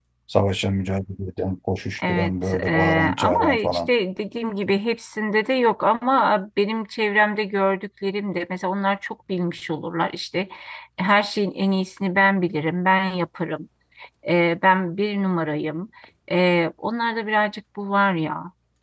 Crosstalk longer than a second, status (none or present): present